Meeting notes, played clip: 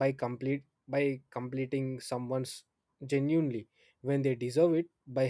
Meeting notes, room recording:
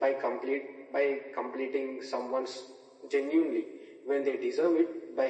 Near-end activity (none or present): none